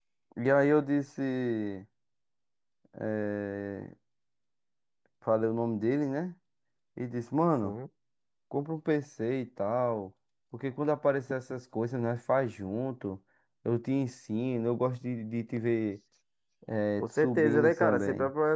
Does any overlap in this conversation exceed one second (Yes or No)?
Yes